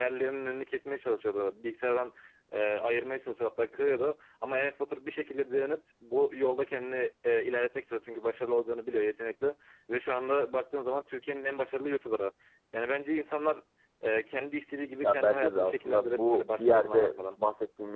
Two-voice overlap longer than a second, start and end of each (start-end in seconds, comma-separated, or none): 15.0-17.4